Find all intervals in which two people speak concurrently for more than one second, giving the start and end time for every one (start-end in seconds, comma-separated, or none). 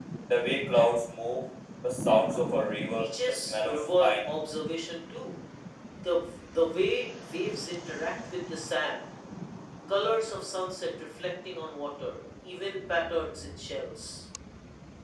2.9-4.3